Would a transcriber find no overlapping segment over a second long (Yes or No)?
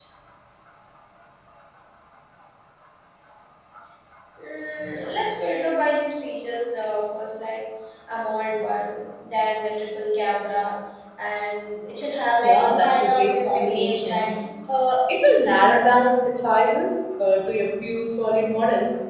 No